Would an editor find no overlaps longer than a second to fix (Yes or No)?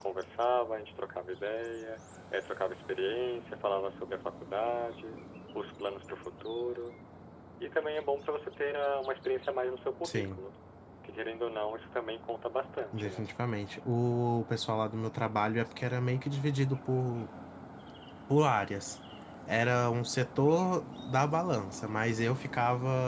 Yes